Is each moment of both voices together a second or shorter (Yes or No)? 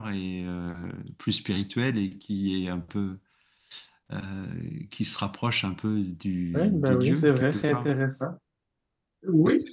No